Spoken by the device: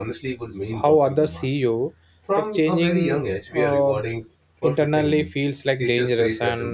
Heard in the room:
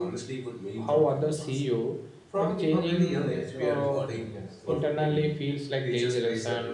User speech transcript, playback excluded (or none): I mean, if everyone likes the version of me I saw,